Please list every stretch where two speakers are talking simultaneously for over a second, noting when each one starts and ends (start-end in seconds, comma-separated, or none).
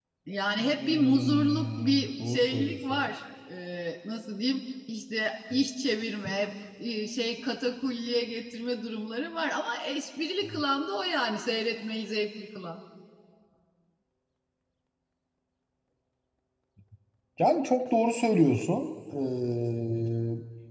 0.6-3.1